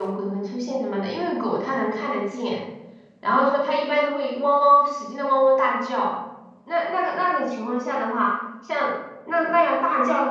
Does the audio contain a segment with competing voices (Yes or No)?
No